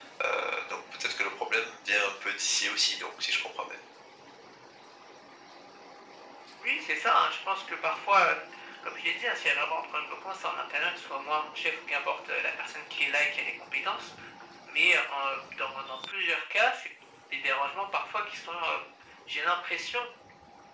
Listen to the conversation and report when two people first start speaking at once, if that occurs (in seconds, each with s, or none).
none